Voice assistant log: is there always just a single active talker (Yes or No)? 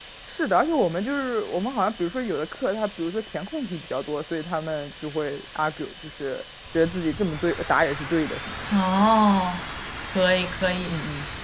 Yes